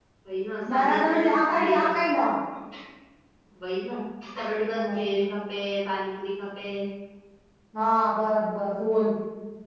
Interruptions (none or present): present